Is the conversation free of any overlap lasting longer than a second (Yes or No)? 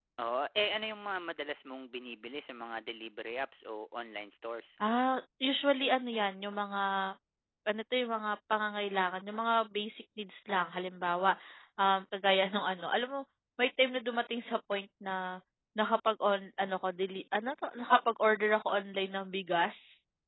Yes